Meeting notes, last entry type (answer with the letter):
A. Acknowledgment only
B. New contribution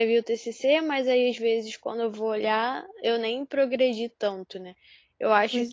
A